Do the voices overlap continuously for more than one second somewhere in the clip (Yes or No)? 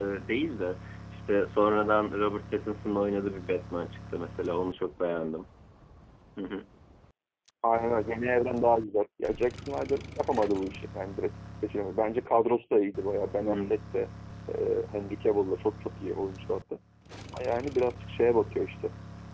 No